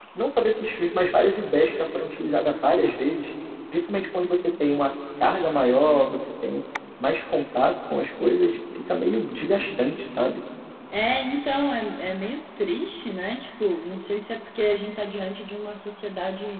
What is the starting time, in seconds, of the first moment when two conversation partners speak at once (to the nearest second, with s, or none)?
none